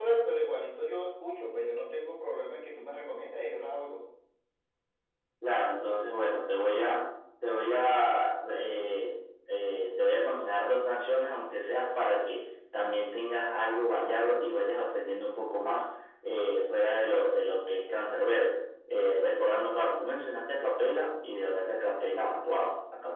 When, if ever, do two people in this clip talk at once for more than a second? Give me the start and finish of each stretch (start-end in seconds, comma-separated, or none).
none